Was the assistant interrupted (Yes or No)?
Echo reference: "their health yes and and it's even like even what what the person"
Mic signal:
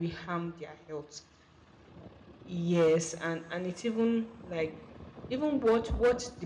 No